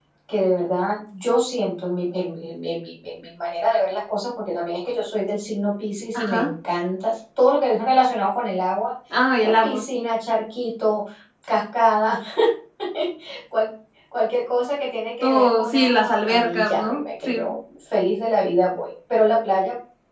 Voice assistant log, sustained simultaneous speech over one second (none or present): present